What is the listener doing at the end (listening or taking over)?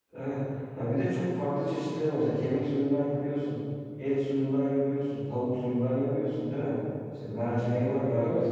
listening